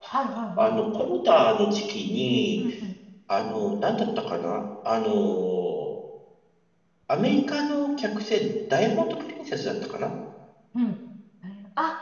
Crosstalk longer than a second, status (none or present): none